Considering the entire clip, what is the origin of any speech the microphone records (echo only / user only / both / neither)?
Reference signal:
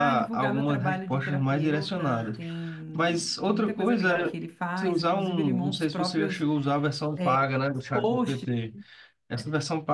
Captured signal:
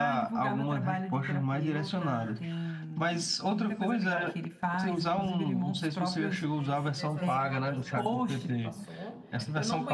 both